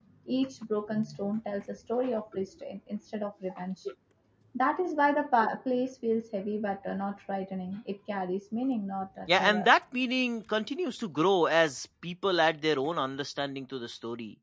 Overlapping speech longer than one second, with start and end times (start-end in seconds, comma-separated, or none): none